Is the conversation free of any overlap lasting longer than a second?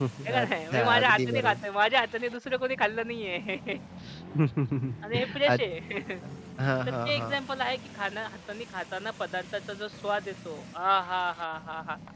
No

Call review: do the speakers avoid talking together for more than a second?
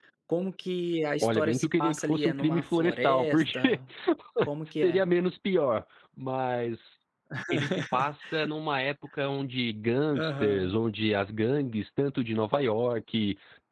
No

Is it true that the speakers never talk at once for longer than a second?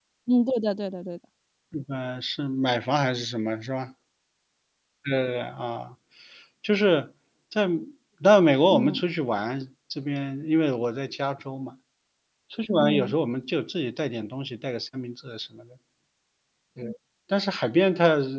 Yes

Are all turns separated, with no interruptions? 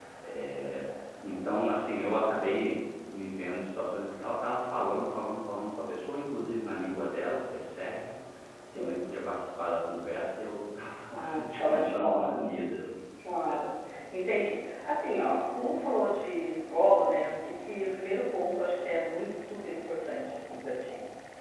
No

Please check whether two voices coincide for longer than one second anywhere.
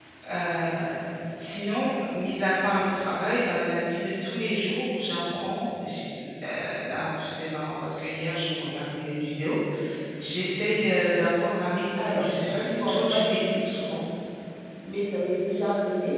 Yes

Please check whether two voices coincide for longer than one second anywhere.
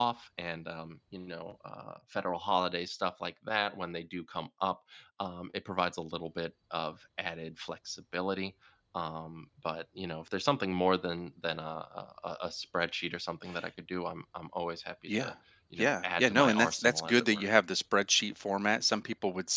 Yes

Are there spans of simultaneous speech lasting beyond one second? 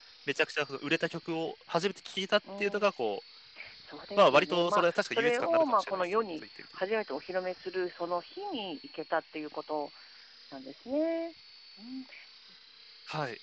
Yes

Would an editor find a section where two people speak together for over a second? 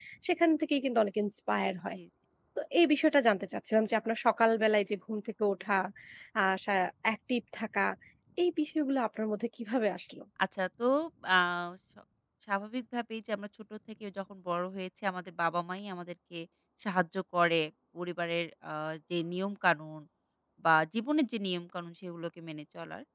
No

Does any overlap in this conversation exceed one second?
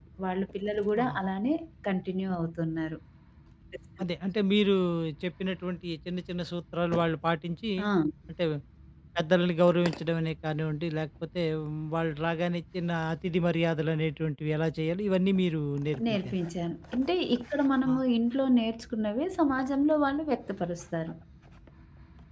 No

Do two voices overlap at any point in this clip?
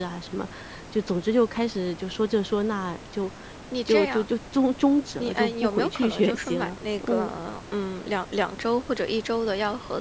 Yes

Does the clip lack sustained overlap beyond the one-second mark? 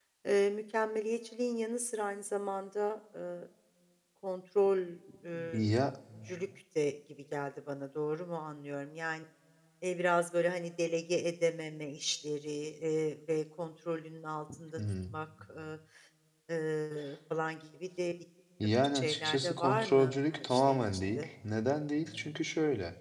No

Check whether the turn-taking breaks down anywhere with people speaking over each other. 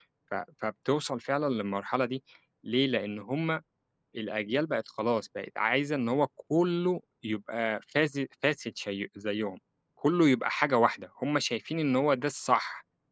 No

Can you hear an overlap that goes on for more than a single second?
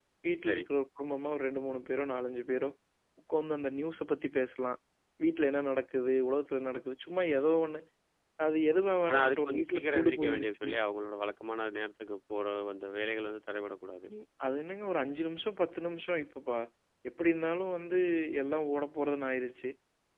Yes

